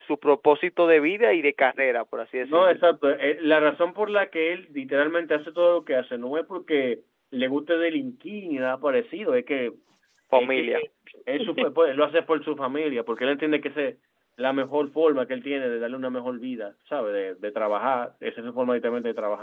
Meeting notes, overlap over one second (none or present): none